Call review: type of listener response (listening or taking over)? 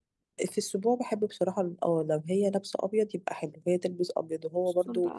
listening